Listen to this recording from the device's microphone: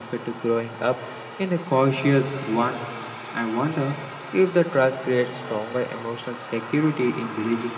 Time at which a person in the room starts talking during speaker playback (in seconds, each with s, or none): none